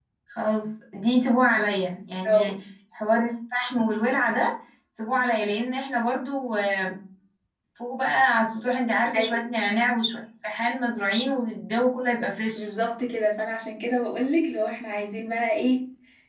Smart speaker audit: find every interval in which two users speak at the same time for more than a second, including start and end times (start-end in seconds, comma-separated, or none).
none